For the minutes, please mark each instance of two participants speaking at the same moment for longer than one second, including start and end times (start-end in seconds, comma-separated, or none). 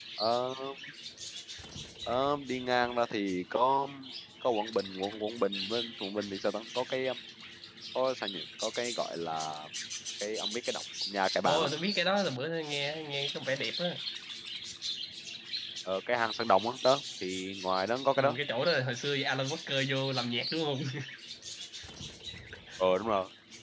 none